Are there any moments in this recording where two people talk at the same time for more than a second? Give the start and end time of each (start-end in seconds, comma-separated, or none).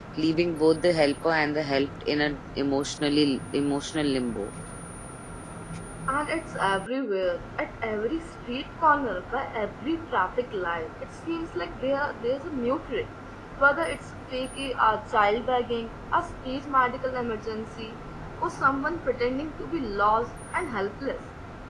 none